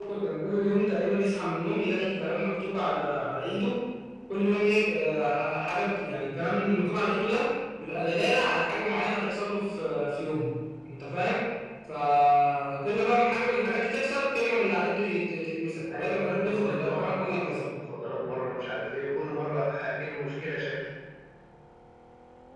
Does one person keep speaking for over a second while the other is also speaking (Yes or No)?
Yes